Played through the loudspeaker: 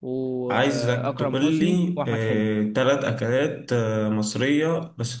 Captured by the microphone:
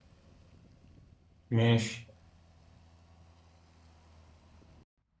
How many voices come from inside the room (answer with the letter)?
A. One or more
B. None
A